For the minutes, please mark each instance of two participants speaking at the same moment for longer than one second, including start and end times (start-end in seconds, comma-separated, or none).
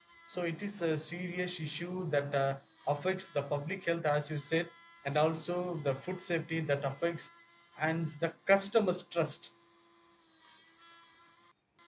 none